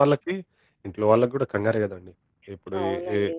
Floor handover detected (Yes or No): No